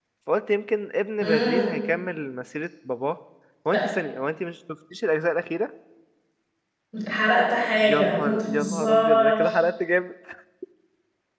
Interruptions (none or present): present